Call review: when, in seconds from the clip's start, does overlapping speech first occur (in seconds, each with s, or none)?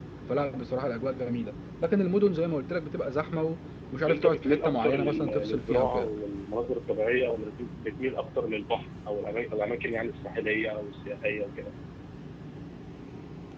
4.0 s